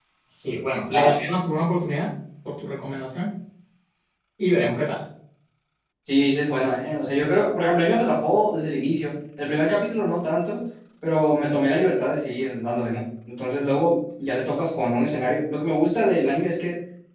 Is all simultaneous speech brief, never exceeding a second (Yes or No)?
Yes